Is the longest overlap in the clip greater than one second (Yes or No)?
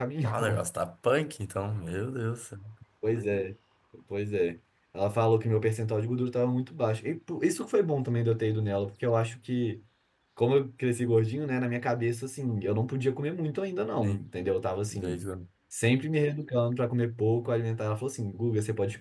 No